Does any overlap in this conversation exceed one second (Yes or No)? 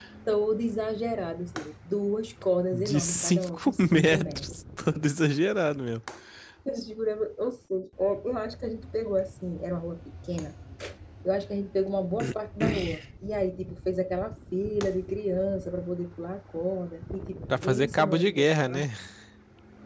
Yes